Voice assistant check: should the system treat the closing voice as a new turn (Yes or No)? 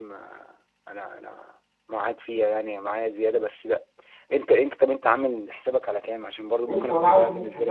Yes